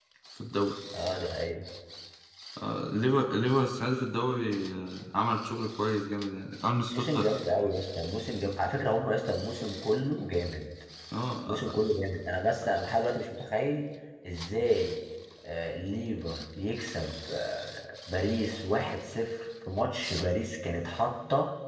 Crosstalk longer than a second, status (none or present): none